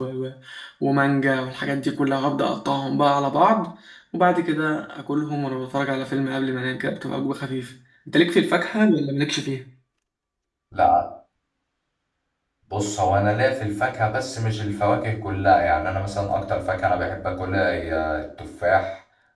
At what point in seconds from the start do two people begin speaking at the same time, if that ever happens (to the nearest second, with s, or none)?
none